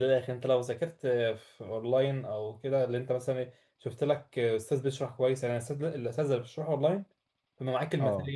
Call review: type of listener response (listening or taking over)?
listening